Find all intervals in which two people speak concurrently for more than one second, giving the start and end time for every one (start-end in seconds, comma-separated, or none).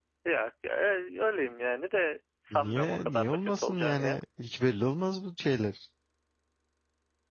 2.5-4.2